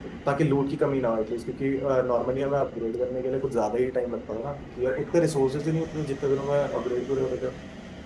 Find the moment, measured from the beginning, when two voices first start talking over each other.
none

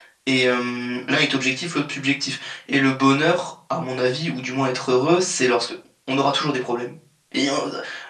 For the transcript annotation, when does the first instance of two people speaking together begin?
none

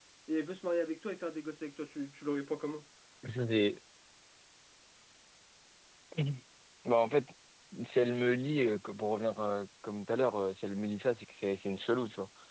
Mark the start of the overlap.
none

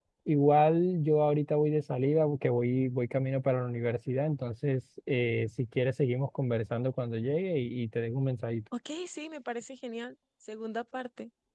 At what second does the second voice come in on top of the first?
none

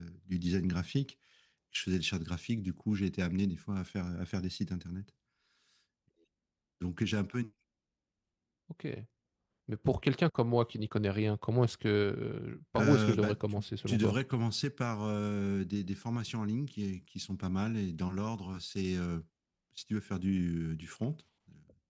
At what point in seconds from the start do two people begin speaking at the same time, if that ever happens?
12.8 s

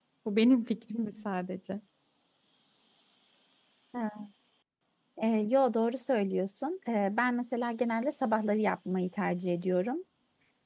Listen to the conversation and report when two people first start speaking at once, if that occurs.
none

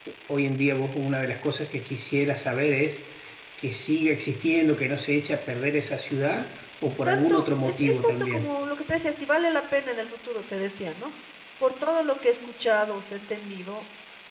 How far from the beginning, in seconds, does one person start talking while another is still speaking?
7.0 s

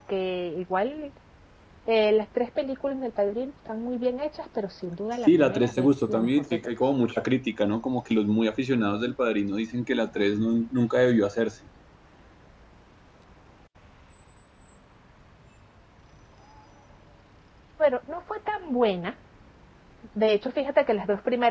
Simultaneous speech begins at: 5.3 s

